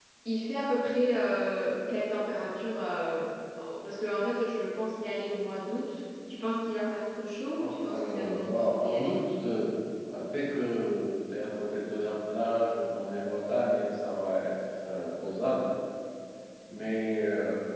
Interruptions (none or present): present